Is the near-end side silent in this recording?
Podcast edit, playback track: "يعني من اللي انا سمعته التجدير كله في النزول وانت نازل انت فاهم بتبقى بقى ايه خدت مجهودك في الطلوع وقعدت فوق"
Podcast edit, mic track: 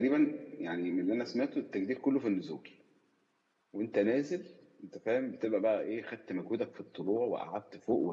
Yes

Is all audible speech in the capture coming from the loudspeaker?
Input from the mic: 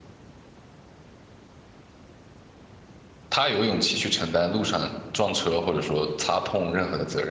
No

